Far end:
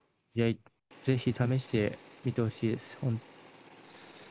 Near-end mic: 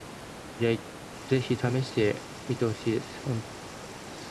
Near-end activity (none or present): none